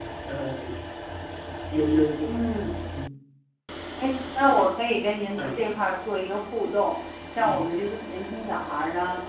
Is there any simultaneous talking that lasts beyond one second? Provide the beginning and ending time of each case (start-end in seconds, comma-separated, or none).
none